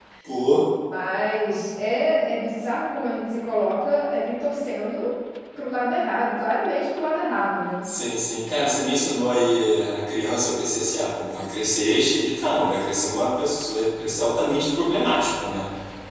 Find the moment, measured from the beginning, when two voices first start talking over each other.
none

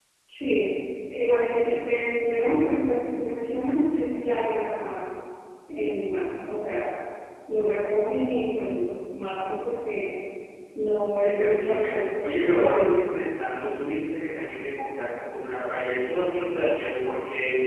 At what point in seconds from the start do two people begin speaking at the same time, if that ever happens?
11.2 s

